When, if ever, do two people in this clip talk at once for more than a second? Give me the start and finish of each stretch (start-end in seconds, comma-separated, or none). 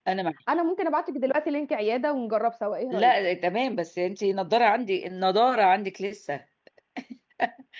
none